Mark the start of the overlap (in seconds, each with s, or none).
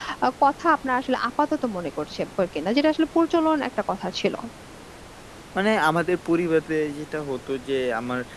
none